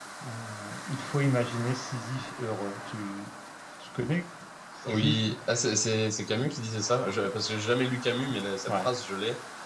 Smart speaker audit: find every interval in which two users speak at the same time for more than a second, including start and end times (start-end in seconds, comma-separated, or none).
none